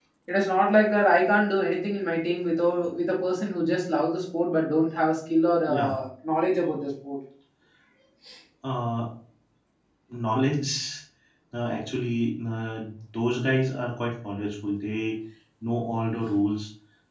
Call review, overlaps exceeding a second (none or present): none